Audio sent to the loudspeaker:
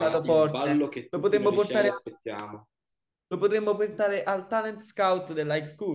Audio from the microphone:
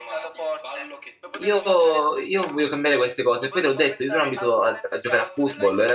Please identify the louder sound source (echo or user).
user